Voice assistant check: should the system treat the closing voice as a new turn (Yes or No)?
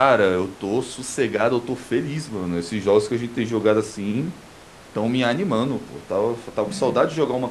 No